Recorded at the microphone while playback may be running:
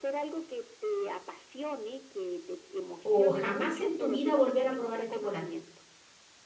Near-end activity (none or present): present